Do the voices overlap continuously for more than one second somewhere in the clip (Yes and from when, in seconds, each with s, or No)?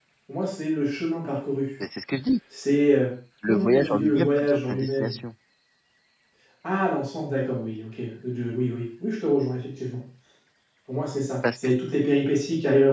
Yes, from 3.5 s